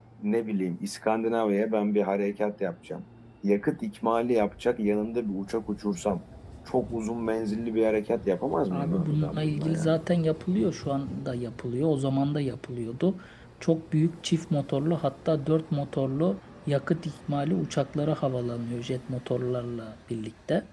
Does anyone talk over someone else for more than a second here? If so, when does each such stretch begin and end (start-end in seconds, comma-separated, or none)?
8.7-9.9